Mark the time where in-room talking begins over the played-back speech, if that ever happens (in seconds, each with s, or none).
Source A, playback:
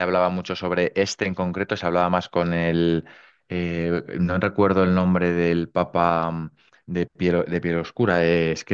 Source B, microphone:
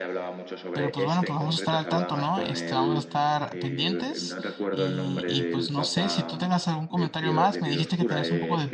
0.7 s